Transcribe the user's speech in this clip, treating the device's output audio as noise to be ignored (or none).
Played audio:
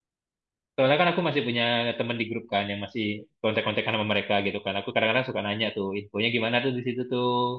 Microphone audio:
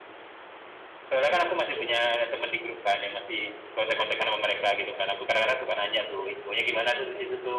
none